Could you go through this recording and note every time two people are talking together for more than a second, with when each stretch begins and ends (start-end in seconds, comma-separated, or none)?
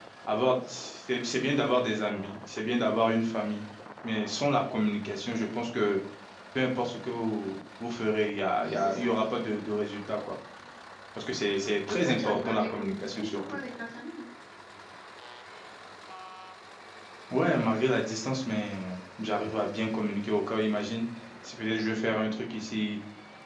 11.9-13.6